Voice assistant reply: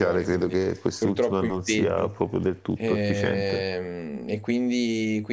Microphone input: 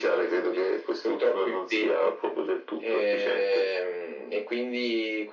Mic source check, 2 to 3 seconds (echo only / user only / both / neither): echo only